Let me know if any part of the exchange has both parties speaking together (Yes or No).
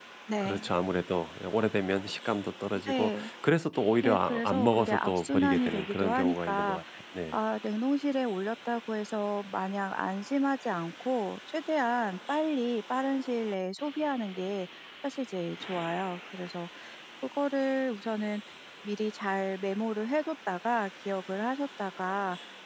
Yes